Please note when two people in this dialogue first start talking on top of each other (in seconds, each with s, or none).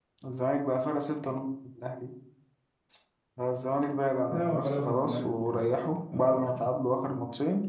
4.3 s